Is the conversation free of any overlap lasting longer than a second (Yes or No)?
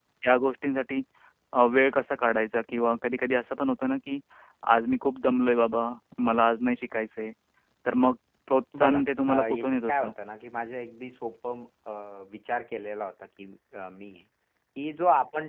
No